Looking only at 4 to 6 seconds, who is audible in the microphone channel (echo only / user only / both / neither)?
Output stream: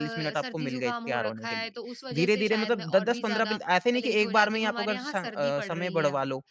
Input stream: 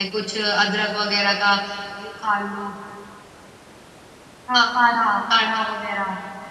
user only